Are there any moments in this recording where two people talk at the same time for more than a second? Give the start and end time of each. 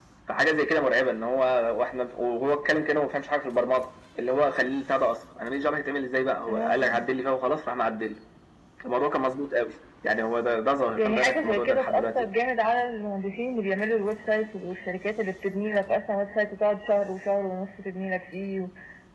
10.9-12.2

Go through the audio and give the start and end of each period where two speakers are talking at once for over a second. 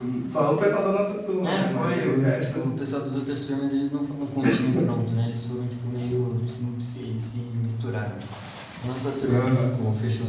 1.4-2.6

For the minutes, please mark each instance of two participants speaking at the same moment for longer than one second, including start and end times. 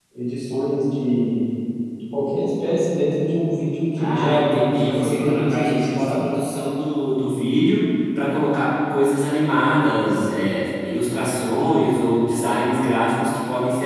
4.0-6.2

